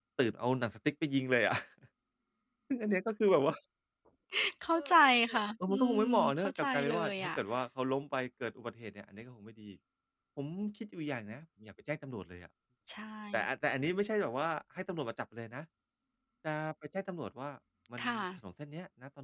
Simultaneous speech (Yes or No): Yes